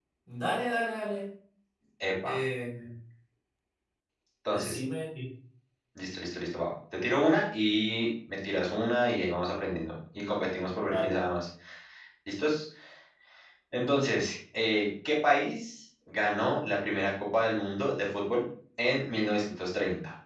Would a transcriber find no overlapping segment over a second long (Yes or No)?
Yes